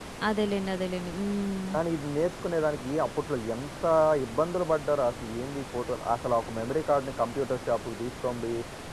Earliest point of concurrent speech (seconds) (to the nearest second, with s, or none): none